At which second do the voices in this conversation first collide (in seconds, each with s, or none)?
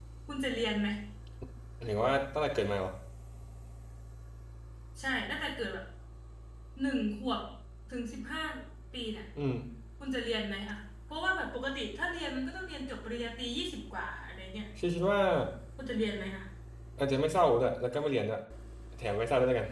none